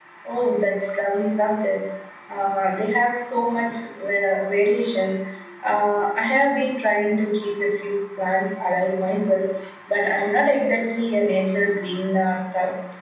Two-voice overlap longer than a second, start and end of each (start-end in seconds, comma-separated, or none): none